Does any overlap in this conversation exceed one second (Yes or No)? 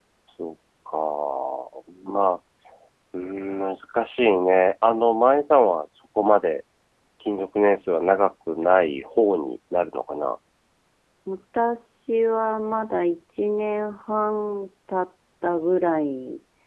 No